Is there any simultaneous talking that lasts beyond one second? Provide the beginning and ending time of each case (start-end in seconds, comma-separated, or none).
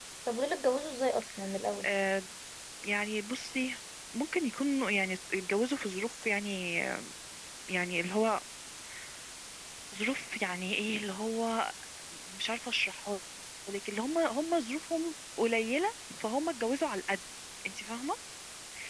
none